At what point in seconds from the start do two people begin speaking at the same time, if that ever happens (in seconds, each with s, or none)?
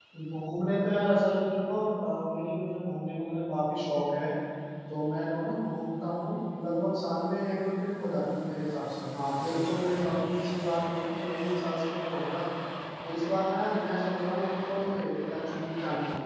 none